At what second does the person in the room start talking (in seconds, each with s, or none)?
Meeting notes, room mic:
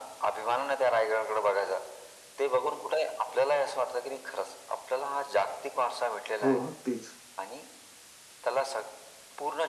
6.4 s